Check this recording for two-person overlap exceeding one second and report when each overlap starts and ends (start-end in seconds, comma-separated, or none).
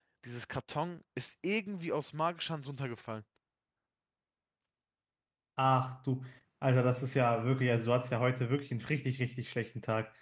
none